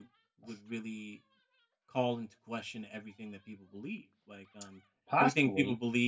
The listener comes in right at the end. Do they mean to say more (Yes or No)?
No